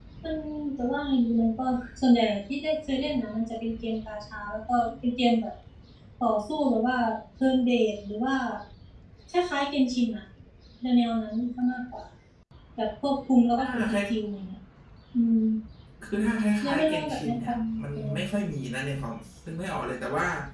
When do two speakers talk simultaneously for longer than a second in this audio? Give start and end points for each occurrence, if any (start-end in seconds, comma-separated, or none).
16.6-18.2